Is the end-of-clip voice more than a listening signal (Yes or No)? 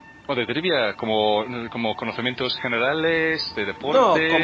Yes